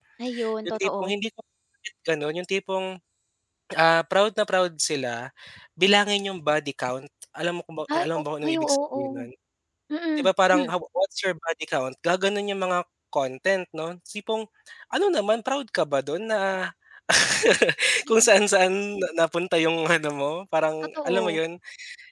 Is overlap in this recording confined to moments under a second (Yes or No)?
No